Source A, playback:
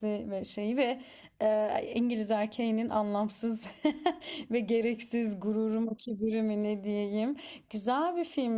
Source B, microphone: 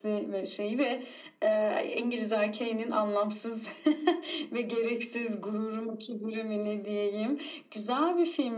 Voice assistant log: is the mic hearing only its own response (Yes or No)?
Yes